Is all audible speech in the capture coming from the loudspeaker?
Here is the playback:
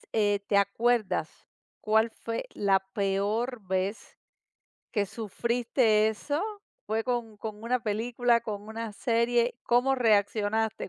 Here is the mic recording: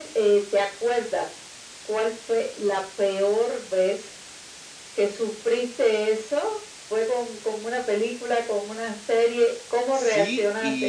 No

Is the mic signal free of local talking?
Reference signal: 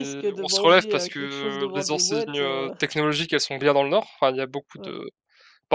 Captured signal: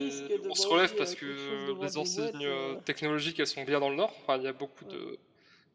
Yes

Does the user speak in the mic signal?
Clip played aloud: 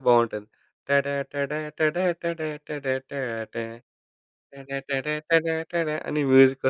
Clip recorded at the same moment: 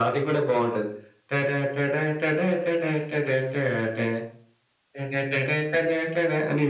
No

